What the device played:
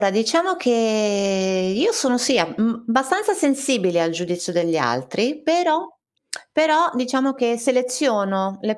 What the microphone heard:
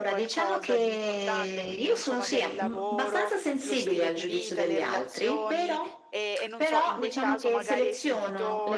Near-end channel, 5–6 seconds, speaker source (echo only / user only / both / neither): both